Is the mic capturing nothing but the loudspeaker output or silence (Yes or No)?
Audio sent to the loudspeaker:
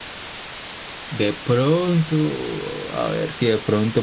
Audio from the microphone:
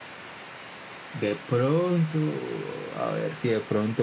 Yes